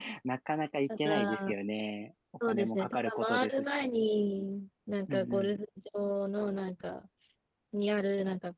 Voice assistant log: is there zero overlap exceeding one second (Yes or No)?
No